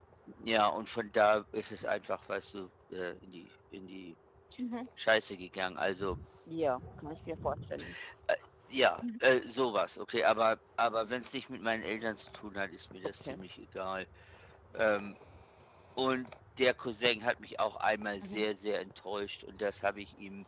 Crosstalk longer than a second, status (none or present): none